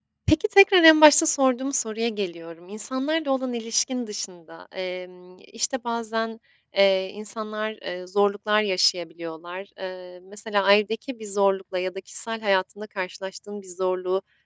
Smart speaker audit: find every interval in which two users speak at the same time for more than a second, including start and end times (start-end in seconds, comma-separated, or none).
none